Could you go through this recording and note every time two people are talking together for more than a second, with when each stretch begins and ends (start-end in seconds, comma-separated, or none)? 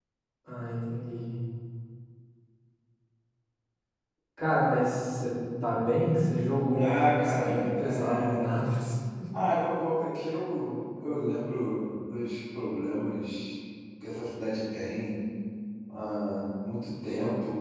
6.8-8.6